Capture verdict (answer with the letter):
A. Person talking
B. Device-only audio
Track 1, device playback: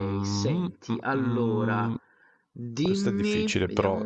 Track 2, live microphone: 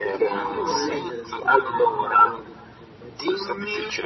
A